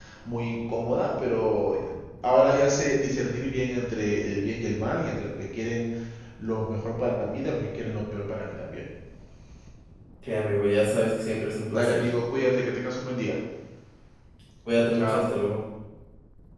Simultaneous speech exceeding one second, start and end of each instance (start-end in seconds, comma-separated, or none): none